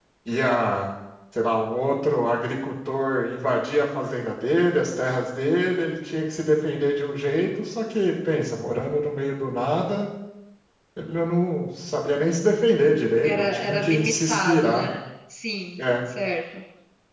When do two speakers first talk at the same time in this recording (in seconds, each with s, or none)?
13.2 s